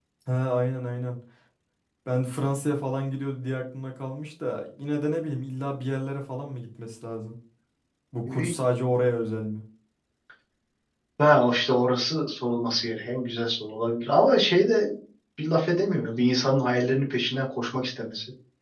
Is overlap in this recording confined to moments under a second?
Yes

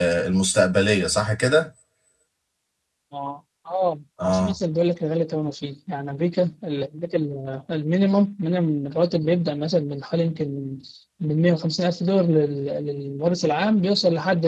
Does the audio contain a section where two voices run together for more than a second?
No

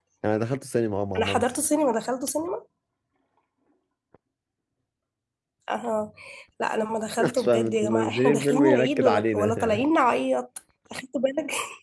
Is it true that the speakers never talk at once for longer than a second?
No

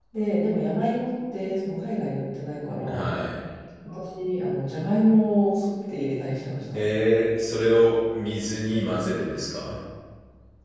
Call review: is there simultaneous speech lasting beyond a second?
No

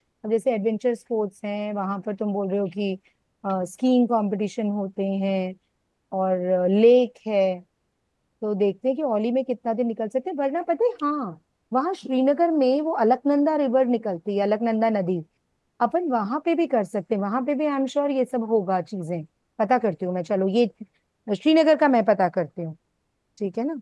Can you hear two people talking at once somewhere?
No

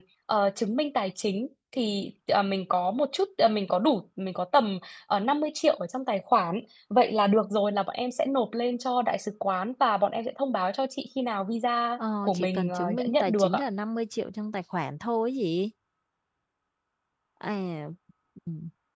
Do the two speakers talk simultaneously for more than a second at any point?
Yes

